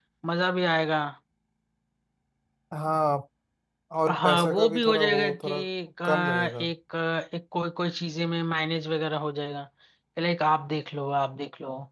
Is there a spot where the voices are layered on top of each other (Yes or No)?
Yes